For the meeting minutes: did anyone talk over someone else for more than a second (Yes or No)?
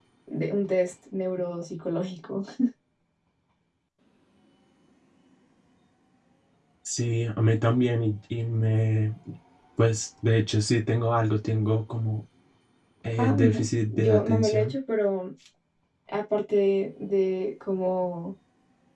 Yes